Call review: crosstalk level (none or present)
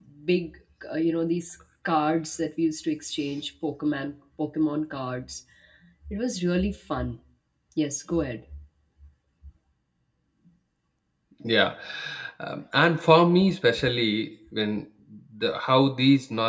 none